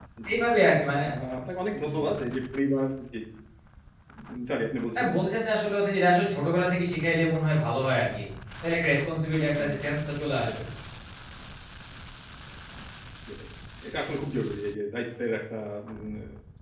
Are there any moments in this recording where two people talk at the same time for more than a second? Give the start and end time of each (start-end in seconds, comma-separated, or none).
none